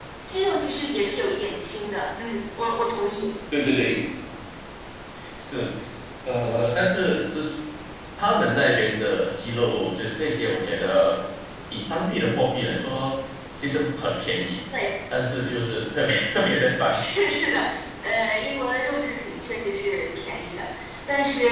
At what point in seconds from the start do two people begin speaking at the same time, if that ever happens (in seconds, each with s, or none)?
none